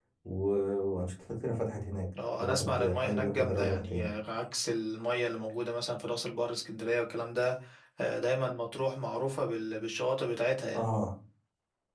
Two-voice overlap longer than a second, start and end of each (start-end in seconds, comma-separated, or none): 2.4-4.1